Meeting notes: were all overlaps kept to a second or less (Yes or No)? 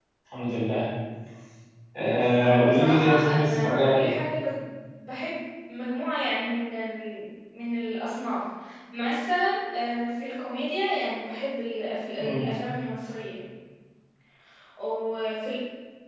No